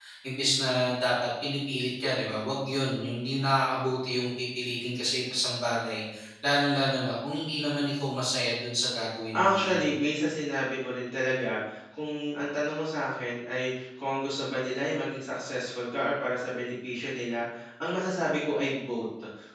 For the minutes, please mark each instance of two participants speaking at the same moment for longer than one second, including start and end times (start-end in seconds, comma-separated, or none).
none